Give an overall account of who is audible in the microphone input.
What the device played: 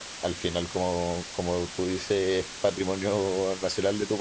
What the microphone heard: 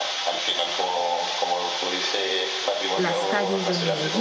both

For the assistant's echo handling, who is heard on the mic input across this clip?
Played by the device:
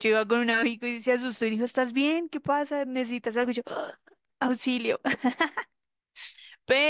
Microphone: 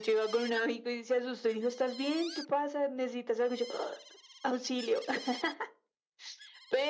echo only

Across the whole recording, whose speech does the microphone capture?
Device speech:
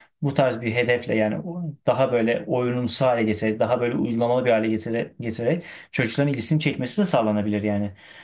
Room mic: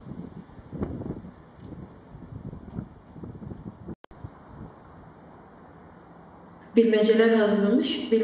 user only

